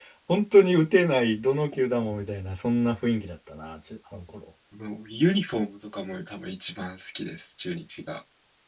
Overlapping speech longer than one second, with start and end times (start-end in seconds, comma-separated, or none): none